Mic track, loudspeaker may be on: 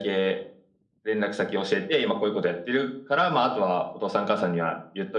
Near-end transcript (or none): none